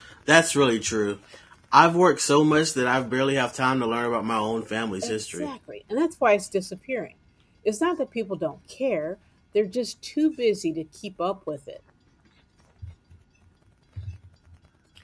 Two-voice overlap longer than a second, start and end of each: none

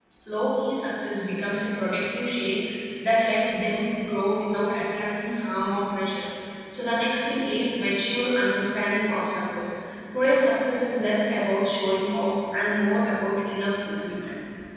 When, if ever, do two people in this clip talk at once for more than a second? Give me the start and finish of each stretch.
none

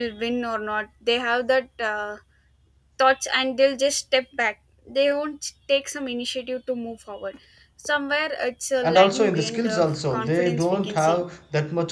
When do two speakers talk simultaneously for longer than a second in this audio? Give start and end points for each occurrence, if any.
8.8-11.2

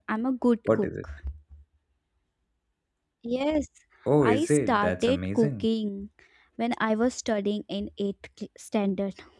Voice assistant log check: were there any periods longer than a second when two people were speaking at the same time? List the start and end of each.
4.2-5.7

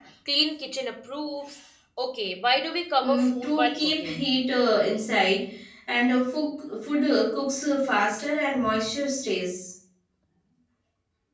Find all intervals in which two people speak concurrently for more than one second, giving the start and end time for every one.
3.0-4.2

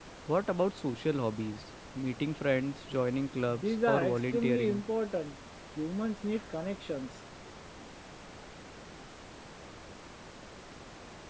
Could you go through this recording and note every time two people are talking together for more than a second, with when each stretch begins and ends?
3.5-4.8

